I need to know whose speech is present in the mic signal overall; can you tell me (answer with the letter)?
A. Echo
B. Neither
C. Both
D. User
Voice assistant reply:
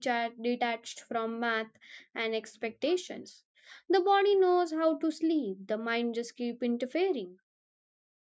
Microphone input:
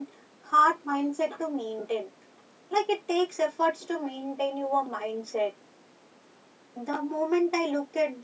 D